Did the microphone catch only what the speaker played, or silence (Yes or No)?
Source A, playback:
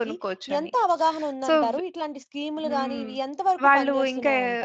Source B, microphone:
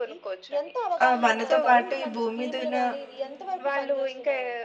No